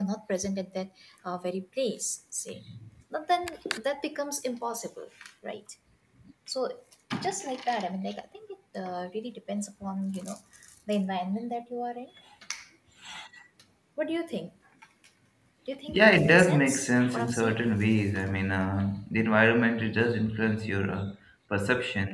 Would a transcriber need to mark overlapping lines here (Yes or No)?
Yes